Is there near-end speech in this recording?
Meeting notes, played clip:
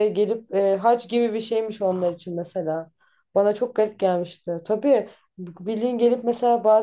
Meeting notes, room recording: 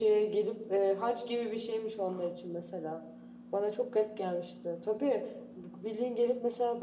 No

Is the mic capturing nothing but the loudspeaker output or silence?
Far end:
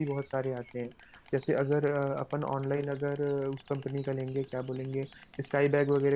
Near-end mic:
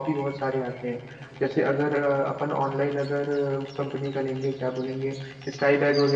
Yes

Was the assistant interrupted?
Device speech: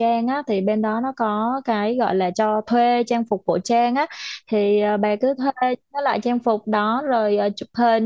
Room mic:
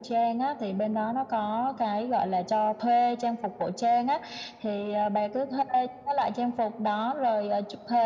No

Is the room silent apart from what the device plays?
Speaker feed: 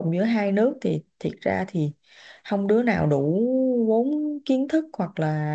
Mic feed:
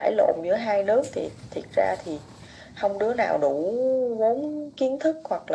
Yes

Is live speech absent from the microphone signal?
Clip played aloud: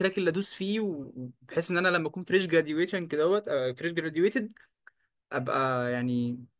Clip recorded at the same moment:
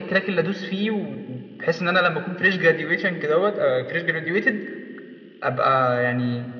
Yes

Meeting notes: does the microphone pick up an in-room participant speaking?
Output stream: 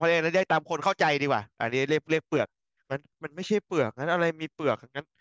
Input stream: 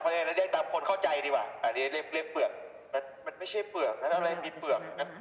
Yes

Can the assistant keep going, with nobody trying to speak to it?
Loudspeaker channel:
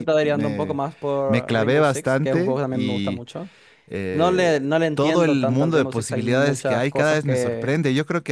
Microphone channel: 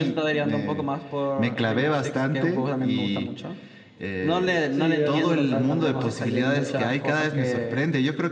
No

